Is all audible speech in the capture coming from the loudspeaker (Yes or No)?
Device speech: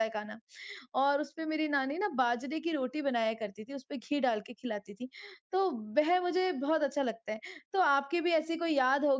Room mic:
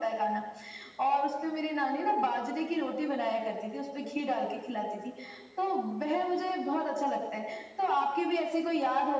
Yes